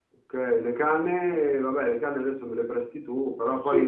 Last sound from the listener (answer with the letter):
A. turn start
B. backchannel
A